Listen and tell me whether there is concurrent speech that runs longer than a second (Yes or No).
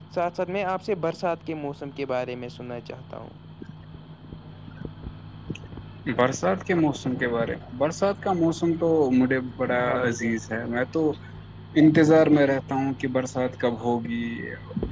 No